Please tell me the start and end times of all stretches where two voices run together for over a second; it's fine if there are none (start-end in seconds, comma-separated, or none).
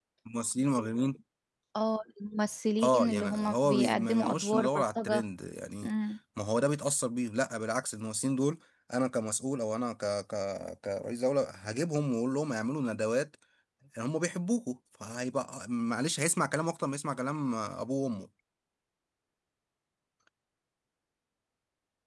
2.8-5.2